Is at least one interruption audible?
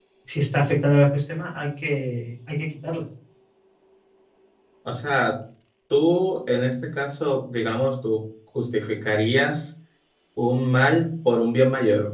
No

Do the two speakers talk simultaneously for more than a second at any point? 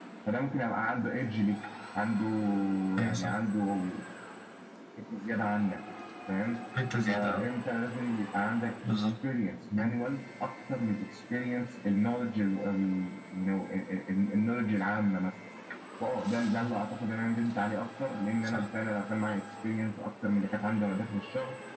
No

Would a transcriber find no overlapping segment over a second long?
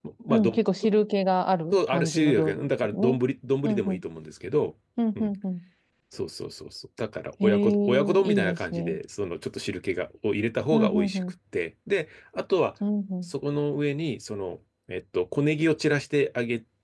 No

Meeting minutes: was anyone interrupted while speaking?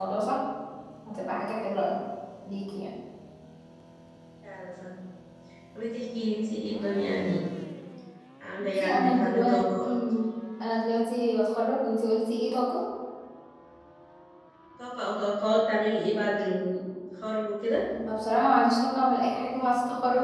Yes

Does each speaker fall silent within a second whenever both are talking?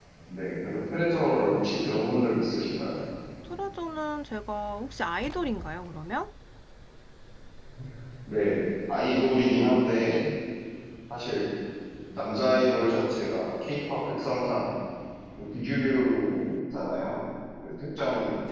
Yes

